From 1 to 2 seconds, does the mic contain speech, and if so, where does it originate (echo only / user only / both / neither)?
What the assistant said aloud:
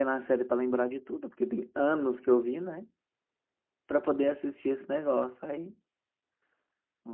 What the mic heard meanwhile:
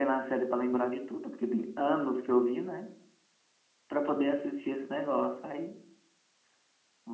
echo only